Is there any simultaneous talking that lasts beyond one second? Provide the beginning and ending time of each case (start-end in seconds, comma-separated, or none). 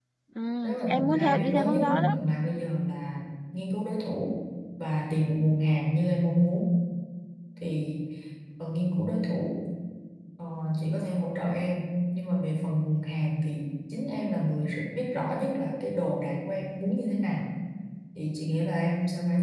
0.6-2.1